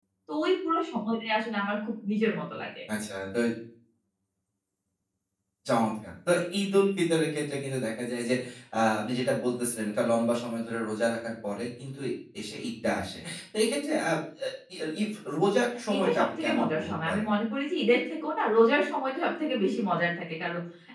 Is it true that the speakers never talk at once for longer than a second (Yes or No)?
No